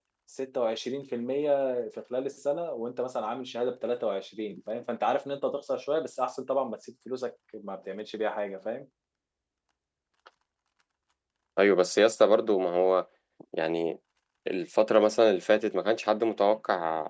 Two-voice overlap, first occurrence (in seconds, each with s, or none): none